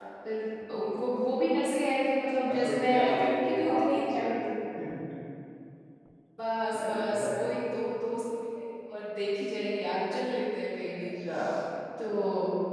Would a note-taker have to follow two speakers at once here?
Yes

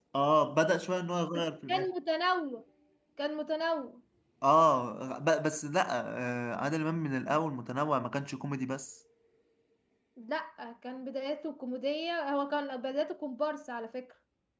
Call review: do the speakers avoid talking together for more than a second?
Yes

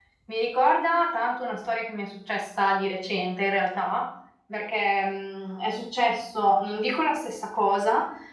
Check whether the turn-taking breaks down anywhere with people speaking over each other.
No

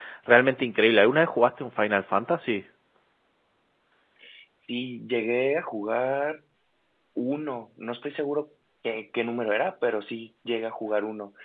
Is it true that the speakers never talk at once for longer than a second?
Yes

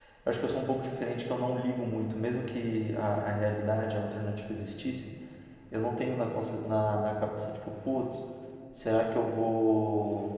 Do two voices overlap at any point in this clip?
No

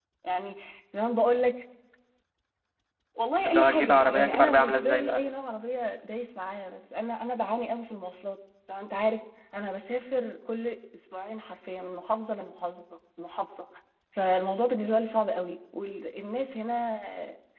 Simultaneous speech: Yes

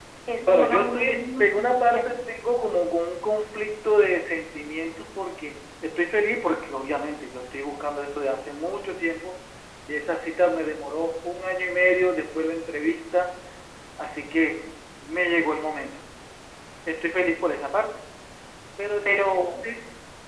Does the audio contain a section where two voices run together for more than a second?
Yes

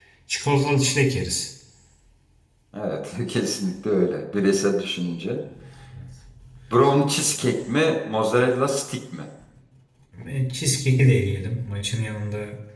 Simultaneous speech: No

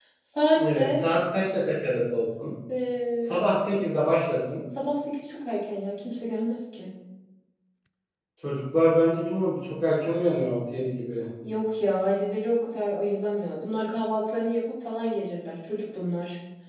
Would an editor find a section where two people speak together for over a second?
No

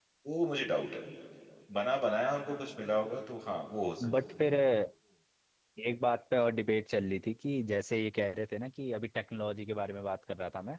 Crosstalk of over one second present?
No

